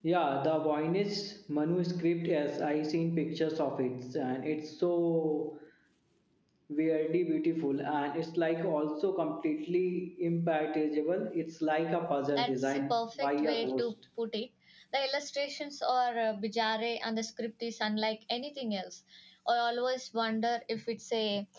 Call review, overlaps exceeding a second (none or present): present